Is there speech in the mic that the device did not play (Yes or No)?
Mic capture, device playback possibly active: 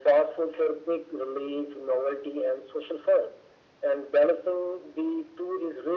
No